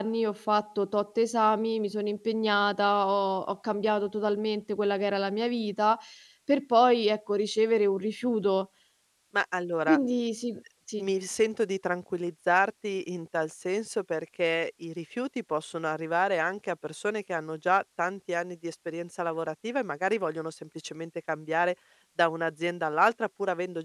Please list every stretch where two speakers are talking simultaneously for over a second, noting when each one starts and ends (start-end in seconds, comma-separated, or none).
none